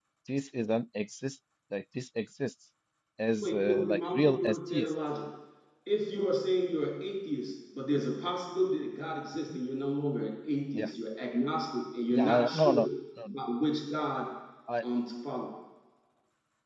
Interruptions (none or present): present